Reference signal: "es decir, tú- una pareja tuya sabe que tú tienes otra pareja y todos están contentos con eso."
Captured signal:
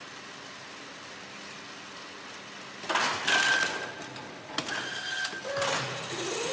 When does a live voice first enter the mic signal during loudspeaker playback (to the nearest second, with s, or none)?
none